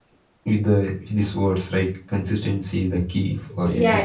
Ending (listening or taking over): taking over